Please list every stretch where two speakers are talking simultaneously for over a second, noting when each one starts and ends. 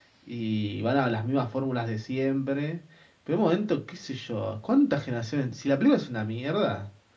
none

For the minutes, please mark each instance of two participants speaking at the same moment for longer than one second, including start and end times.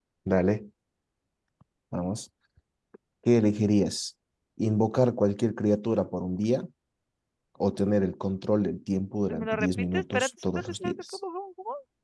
9.4-11.2

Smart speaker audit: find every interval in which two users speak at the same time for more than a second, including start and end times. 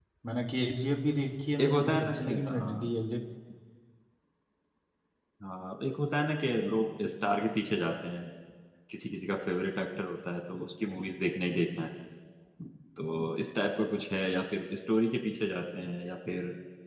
1.6-2.9

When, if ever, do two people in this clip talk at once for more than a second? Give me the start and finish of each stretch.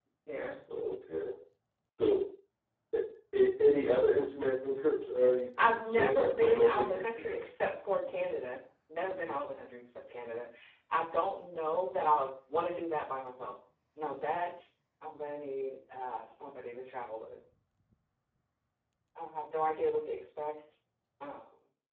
5.6-7.4

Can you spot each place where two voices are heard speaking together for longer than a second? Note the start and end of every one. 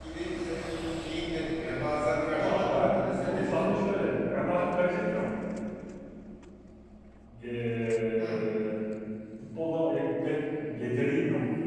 2.3-4.1

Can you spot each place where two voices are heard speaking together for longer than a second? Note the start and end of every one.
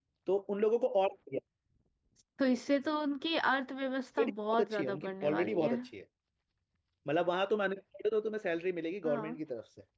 4.2-5.7

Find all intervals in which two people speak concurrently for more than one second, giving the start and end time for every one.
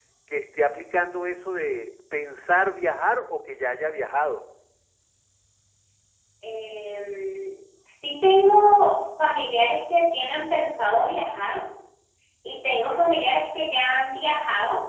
none

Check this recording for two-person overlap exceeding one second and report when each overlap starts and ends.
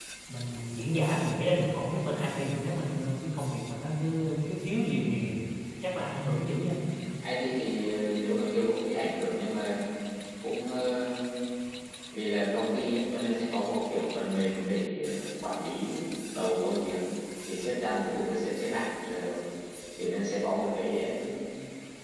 none

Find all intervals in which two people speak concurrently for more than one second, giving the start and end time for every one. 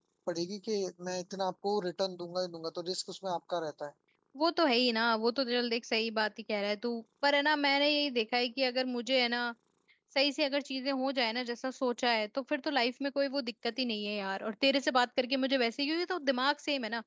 none

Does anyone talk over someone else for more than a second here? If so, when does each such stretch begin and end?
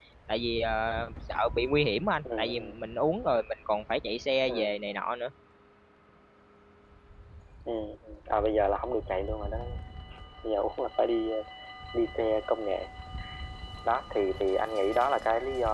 none

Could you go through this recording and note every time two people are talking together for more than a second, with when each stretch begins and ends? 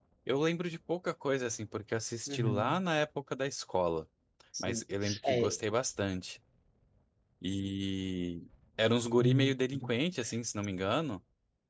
none

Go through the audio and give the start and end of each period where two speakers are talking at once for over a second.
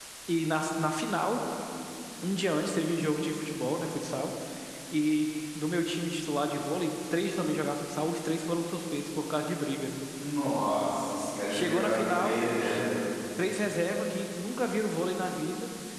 11.5-12.8

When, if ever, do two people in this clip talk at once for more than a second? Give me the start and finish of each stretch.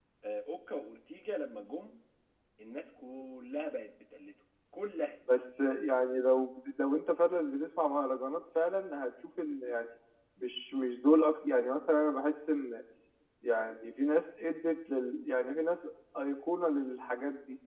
none

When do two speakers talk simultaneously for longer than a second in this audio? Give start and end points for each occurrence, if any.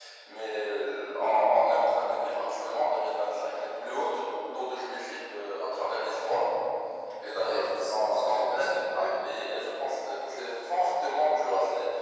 7.4-9.0

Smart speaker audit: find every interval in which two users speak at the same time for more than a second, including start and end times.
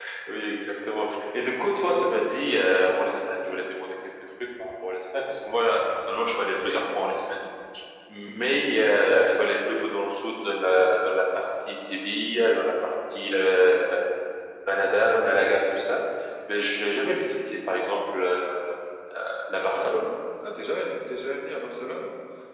none

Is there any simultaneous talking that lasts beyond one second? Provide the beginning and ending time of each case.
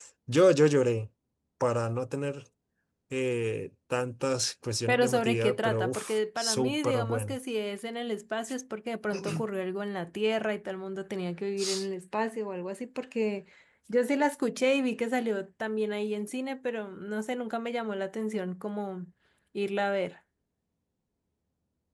4.9-7.4

